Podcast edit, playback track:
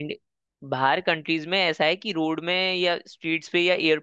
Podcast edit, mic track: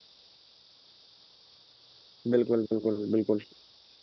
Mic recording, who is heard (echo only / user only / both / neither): user only